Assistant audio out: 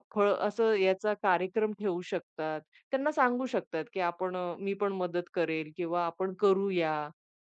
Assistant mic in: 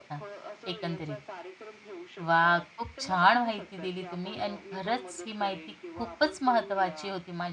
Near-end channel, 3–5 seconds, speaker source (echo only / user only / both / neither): both